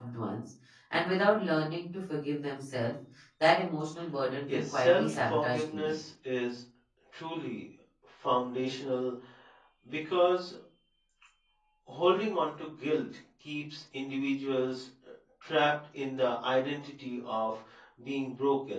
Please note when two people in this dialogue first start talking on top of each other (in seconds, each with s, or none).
4.5 s